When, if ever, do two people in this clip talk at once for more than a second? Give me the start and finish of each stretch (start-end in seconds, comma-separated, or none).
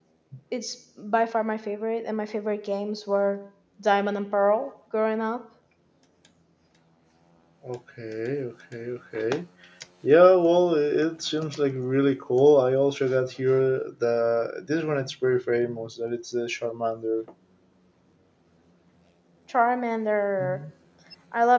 none